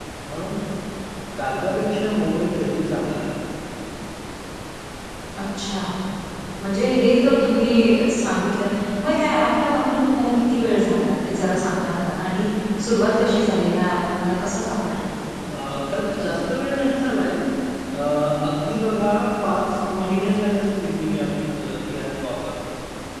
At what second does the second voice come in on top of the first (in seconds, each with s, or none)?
none